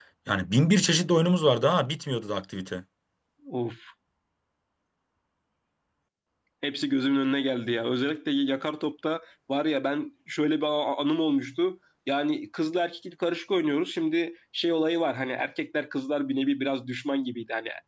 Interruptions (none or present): none